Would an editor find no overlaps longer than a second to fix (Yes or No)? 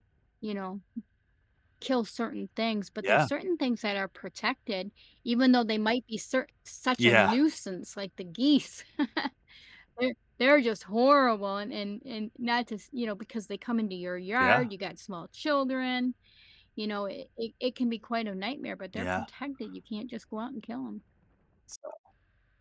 Yes